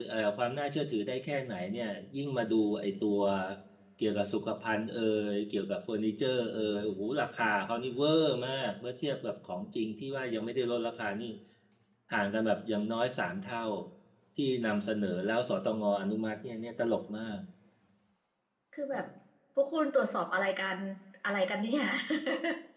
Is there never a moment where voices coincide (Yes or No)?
Yes